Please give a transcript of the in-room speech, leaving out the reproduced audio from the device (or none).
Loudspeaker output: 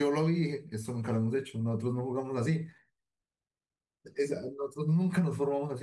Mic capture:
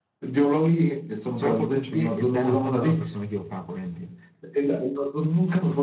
Solo porque un pie está adelantando a la persona equivocada, por ejemplo.